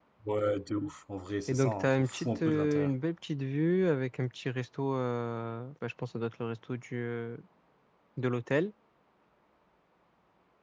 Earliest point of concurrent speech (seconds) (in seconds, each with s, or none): 1.5 s